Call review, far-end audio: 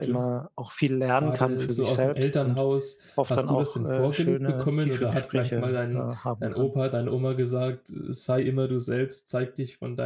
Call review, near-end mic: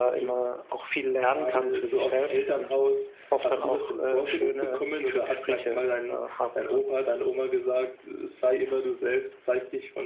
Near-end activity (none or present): none